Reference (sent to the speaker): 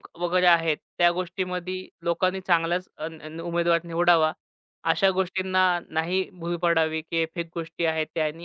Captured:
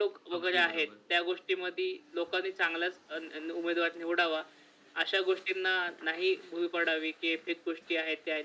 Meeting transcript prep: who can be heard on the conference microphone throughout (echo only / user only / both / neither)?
both